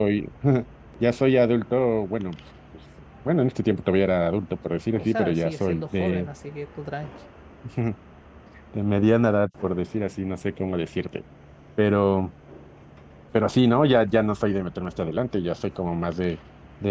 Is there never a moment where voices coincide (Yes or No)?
No